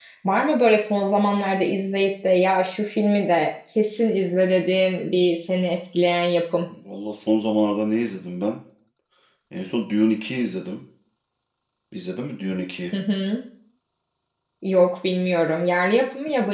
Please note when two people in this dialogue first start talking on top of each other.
none

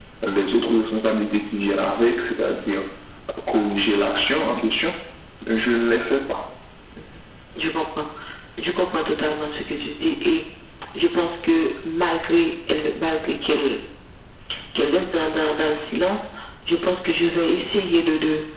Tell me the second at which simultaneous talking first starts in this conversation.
none

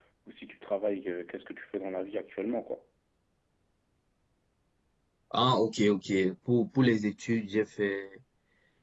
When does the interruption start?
none

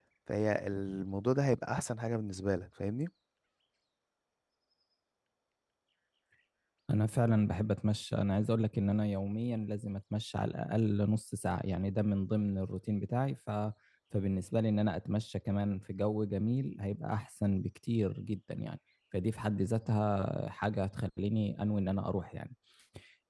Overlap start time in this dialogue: none

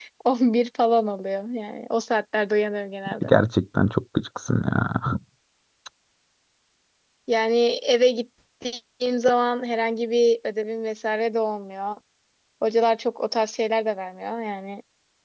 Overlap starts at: none

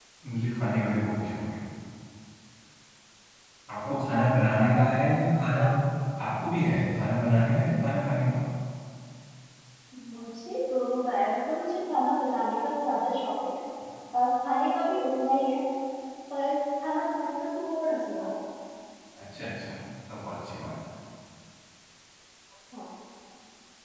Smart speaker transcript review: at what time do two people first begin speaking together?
3.9 s

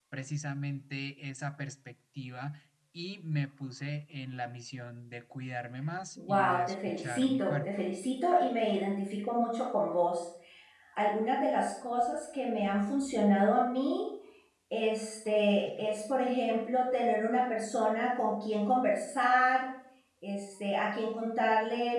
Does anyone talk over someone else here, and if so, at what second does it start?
6.2 s

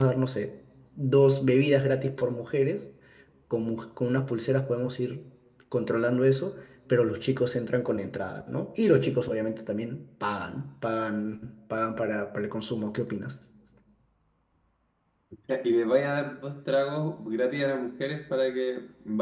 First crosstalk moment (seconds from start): none

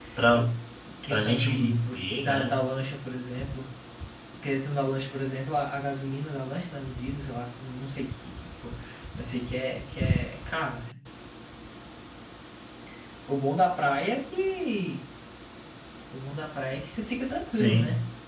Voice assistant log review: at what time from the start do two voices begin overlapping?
1.1 s

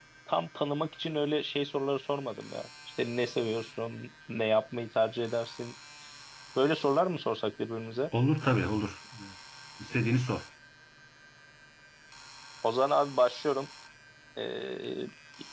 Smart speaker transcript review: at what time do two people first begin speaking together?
none

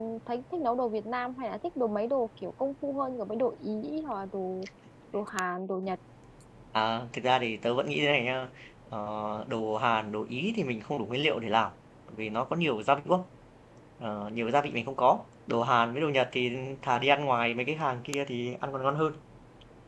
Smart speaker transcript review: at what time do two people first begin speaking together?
none

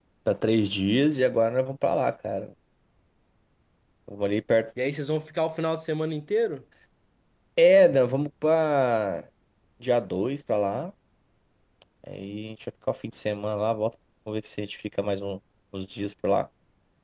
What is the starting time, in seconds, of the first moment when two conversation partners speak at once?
none

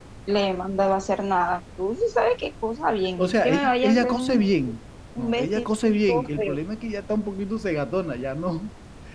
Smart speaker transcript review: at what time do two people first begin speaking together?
3.2 s

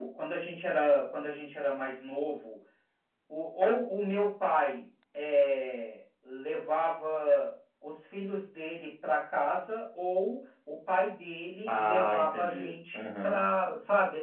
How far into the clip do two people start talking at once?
11.7 s

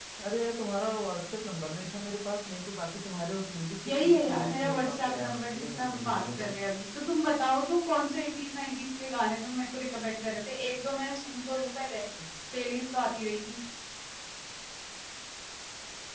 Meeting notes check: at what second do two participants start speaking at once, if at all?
3.8 s

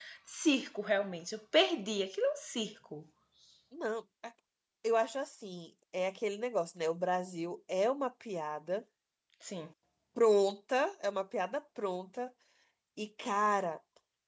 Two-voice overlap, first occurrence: none

